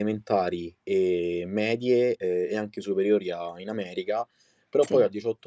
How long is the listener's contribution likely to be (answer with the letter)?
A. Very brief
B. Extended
A